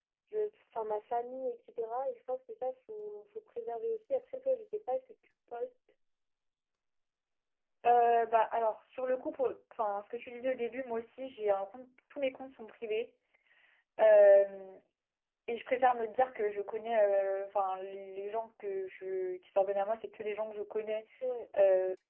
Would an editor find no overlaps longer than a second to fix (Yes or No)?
Yes